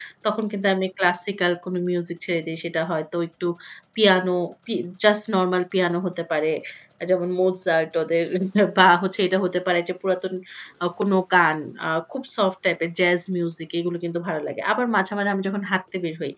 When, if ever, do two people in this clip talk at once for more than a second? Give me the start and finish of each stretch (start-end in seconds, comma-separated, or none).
none